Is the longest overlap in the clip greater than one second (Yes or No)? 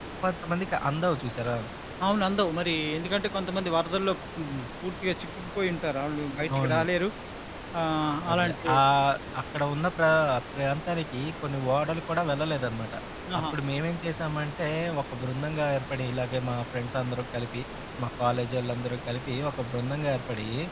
No